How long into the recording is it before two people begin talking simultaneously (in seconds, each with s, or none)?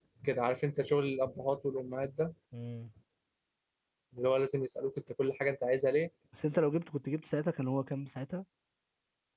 none